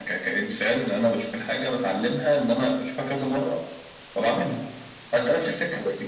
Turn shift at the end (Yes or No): Yes